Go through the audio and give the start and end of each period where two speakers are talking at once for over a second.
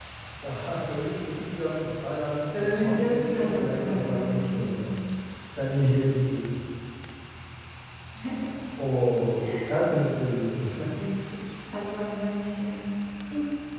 2.5-4.8

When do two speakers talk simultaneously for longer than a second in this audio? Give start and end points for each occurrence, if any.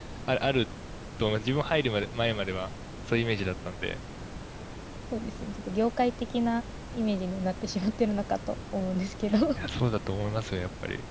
none

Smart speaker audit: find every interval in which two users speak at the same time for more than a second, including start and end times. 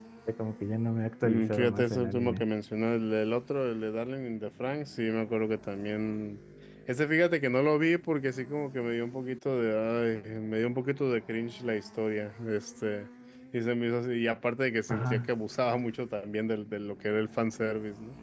1.2-2.4

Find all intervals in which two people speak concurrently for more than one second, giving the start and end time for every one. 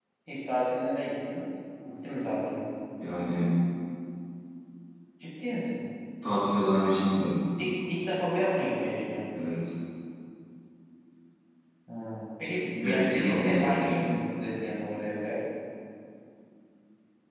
12.8-14.2

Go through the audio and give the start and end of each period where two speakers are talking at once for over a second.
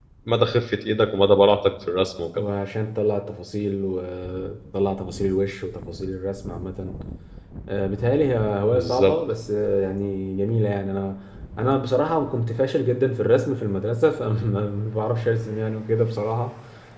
none

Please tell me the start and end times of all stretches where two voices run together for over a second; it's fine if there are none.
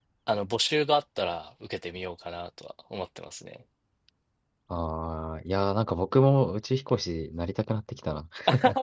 none

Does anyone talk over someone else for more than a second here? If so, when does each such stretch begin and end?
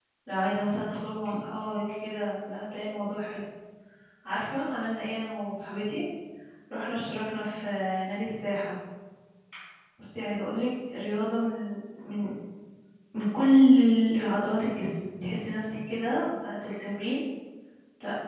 none

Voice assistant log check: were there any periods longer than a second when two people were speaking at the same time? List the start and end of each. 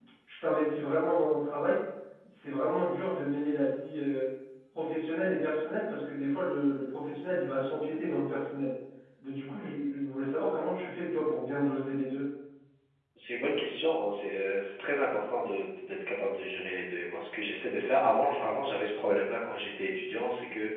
none

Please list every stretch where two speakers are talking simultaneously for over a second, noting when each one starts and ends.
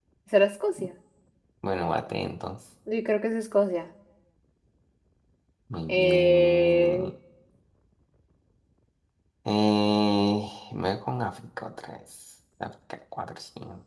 5.9-7.1

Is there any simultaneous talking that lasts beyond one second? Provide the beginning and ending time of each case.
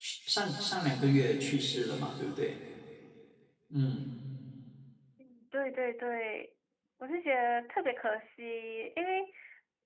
none

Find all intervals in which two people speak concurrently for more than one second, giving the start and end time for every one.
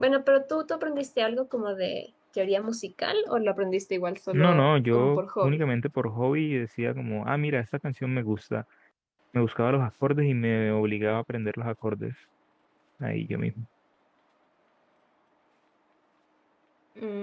4.3-5.6

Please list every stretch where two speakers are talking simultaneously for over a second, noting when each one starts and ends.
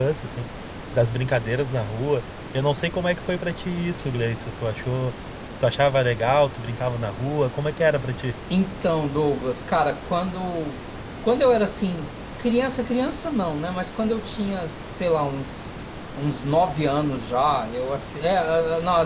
none

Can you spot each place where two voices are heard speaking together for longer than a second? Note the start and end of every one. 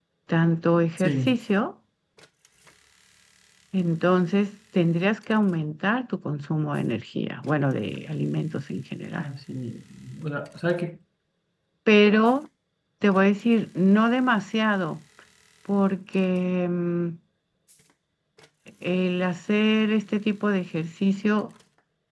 none

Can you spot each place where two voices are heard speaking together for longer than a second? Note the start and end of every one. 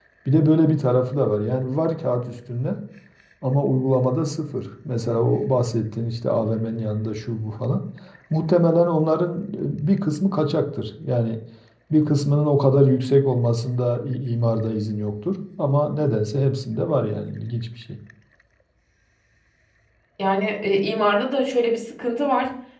none

